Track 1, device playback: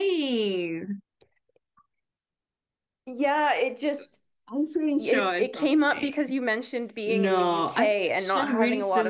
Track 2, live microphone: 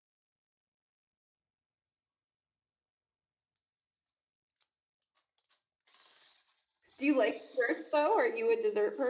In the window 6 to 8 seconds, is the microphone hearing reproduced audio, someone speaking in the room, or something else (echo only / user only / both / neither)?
user only